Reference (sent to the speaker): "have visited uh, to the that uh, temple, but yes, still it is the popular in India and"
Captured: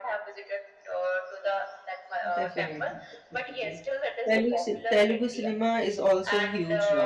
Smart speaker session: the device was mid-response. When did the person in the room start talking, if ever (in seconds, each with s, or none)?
2.4 s